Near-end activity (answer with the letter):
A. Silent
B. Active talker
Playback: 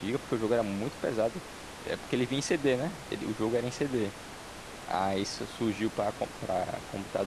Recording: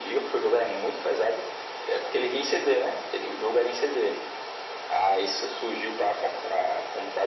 A